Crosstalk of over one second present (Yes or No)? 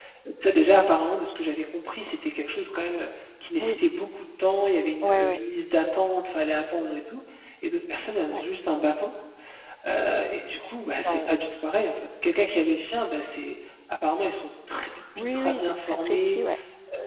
Yes